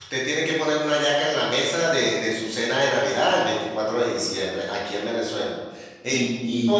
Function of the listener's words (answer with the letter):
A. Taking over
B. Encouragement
A